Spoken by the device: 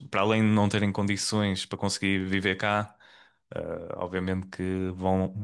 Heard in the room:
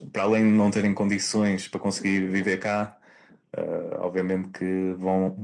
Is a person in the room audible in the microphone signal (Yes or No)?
No